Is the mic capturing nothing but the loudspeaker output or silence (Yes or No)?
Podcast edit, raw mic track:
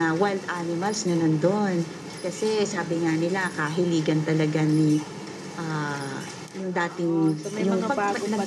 No